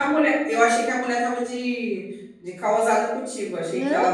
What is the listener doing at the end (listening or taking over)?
taking over